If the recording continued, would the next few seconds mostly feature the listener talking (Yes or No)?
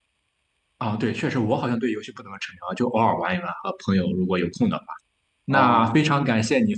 No